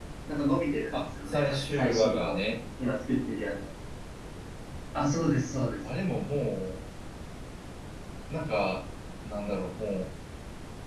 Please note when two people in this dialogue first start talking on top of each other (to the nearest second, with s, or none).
1 s